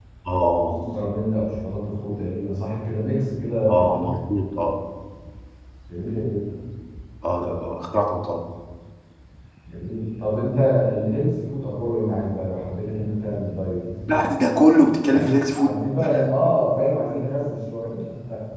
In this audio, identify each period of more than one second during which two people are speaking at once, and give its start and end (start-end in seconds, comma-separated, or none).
none